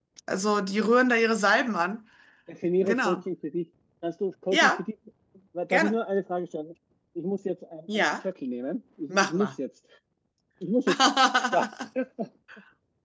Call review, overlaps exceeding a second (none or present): none